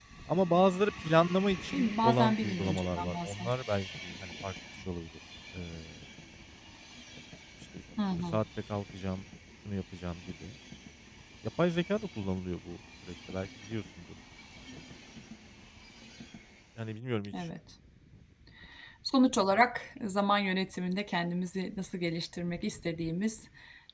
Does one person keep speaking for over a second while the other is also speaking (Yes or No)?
Yes